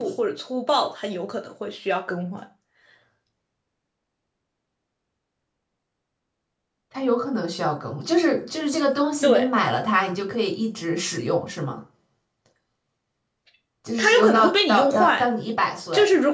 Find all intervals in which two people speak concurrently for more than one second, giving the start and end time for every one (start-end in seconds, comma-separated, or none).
14.0-15.2